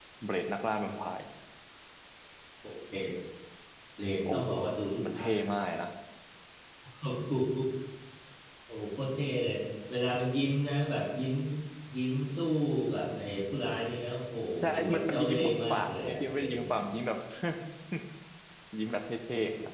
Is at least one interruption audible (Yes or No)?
Yes